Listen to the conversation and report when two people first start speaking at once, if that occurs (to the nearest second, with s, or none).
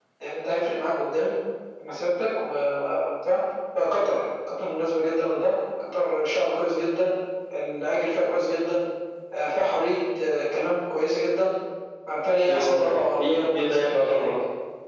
12 s